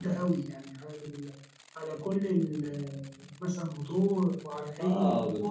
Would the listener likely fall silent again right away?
No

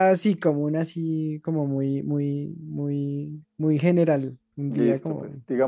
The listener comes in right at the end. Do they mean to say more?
Yes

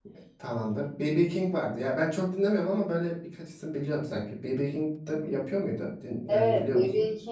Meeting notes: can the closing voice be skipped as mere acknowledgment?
No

